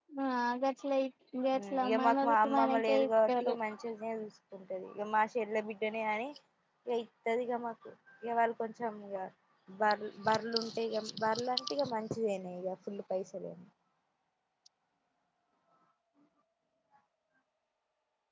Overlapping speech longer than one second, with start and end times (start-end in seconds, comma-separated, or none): 1.6-3.5